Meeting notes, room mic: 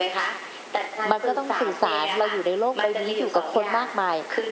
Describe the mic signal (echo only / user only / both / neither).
both